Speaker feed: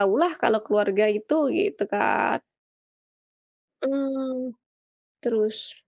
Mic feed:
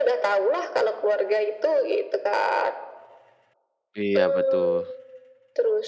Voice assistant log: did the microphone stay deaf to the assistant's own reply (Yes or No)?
No